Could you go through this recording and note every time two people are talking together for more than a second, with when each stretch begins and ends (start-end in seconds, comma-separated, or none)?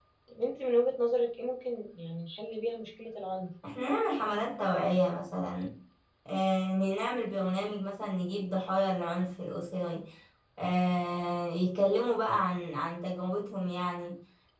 none